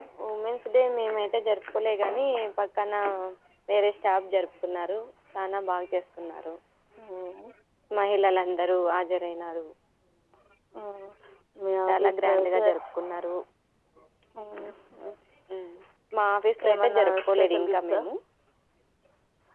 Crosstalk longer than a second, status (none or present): present